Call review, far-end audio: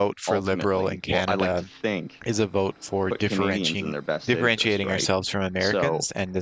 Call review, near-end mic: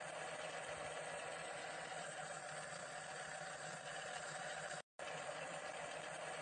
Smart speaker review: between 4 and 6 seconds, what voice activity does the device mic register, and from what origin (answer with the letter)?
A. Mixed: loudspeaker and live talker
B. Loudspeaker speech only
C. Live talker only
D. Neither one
D